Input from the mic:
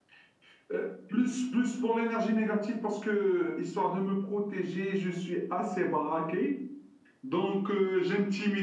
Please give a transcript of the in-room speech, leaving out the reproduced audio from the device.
none

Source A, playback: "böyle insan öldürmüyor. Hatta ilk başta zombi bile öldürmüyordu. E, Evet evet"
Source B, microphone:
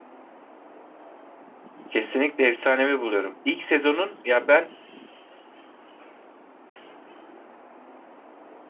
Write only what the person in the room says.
Kesinlikle efsanevi buluyorum. İlk sezonun ya ben

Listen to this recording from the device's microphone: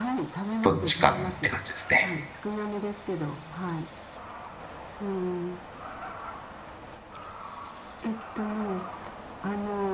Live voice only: どっちかって感じですね。

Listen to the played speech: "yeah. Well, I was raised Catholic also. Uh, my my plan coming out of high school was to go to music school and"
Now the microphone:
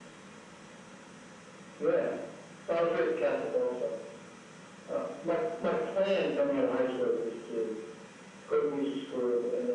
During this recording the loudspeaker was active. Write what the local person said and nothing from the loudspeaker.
none

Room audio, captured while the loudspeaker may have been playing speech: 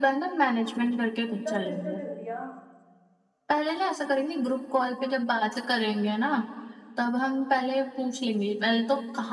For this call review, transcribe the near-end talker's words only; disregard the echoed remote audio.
इतना खर्चा कर दिया

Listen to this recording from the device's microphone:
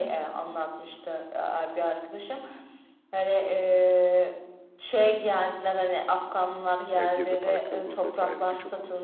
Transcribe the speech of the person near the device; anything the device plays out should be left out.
Yani Gezi Parkı olur vesaire birçok

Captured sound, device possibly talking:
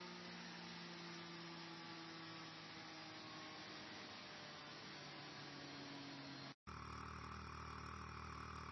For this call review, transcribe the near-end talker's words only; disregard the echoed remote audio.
none

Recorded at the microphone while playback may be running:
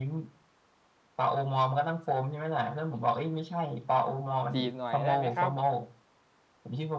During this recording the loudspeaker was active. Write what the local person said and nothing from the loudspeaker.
จีบหน่อยได้ไหมครับ

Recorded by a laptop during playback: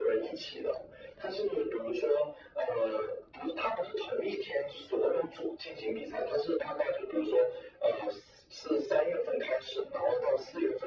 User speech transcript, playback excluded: none

